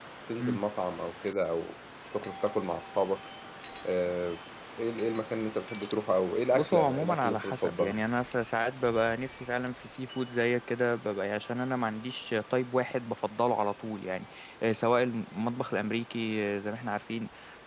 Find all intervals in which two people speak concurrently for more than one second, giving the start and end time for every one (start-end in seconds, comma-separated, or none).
6.5-8.0